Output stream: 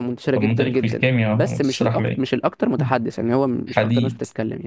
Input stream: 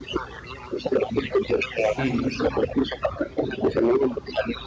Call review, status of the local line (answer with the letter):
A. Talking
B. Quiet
A